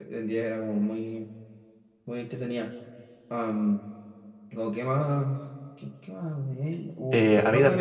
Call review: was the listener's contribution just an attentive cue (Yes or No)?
No